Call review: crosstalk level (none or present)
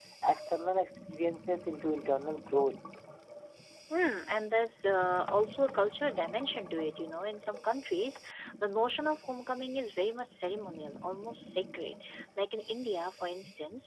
none